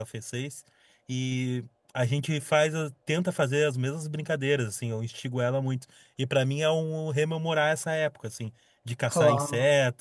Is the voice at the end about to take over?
No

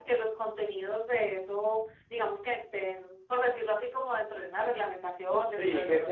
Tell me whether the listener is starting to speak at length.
Yes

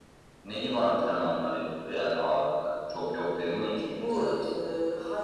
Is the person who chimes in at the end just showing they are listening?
No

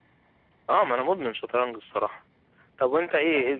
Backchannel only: Yes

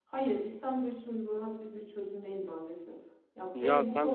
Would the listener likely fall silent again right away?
No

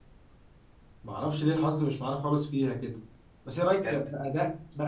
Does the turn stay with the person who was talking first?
Yes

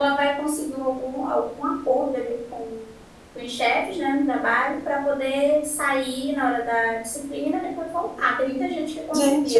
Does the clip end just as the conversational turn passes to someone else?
Yes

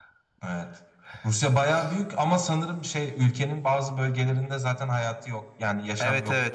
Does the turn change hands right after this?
Yes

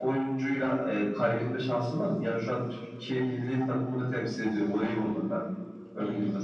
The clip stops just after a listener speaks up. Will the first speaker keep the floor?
No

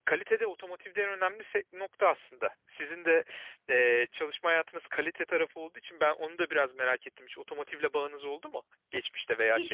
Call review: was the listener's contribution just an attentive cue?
No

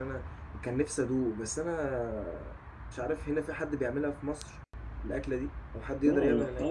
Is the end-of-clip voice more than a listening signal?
Yes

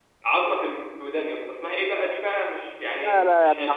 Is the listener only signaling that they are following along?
No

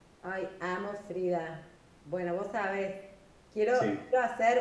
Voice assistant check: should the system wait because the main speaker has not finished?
Yes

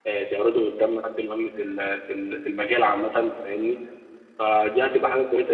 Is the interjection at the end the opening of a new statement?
No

